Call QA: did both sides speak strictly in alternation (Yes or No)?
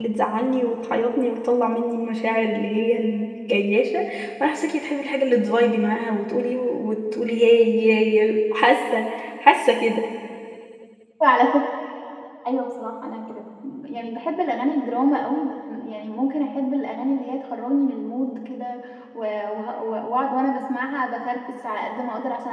Yes